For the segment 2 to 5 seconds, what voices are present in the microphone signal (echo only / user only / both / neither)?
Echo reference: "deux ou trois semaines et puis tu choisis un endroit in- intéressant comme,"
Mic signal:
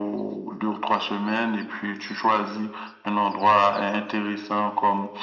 echo only